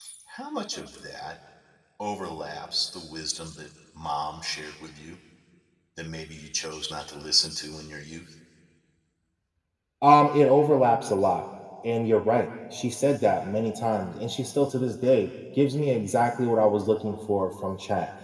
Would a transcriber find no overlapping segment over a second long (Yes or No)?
Yes